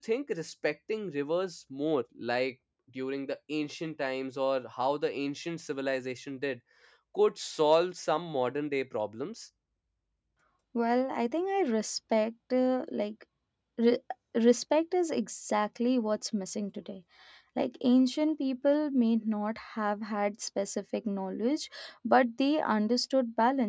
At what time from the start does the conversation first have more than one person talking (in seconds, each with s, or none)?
none